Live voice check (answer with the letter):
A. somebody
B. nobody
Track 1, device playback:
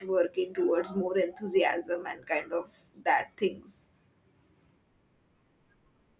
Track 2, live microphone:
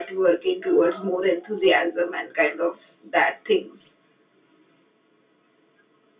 B